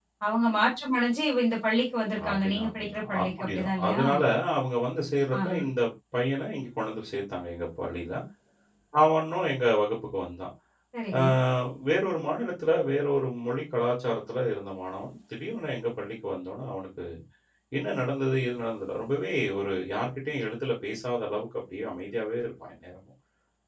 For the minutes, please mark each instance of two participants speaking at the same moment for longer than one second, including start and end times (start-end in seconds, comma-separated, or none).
2.3-4.0